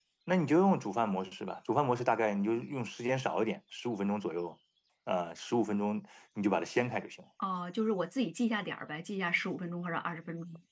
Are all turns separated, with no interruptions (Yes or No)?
Yes